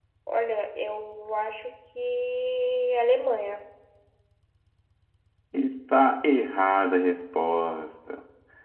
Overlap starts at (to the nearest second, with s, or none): none